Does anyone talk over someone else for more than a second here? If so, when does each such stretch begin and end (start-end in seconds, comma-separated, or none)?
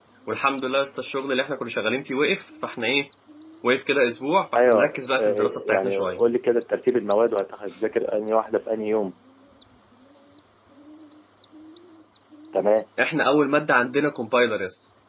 4.6-6.2